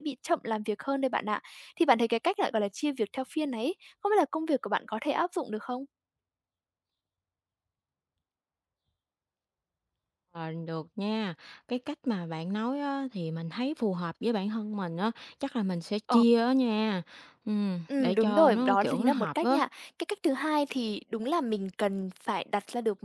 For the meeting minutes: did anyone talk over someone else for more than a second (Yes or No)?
Yes